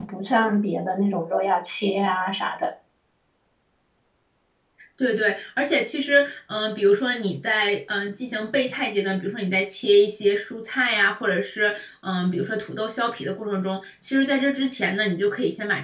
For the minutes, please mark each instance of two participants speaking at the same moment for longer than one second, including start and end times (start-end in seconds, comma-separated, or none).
none